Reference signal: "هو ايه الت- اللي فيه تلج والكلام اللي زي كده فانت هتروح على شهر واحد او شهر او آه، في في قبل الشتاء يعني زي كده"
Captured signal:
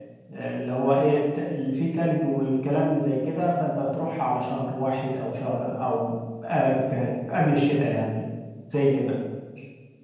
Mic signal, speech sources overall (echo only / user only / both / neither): echo only